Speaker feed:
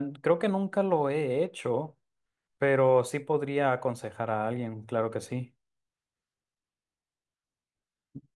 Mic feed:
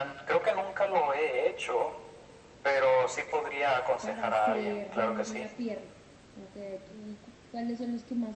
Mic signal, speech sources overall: both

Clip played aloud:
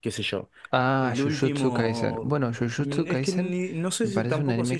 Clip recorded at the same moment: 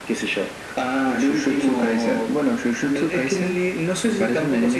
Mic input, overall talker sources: echo only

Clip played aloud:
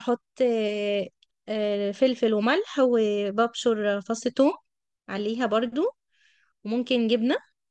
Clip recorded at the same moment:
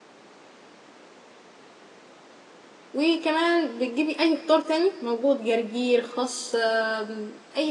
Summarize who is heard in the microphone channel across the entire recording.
user only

